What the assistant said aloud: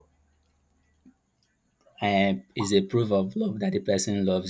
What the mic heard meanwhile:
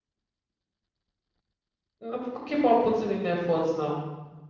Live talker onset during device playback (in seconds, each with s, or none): 2.0 s